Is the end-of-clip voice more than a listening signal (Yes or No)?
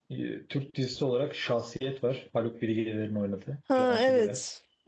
Yes